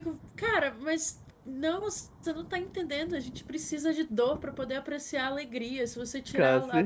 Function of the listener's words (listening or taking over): listening